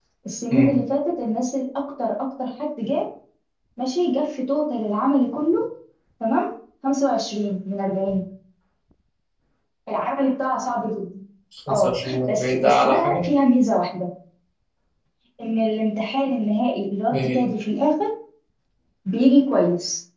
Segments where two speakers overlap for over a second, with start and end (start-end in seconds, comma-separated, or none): 11.7-13.2